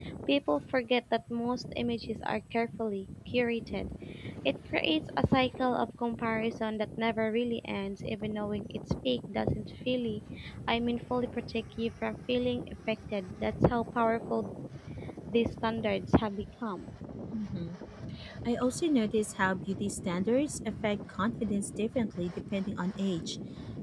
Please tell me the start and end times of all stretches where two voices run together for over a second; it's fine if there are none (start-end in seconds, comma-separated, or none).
none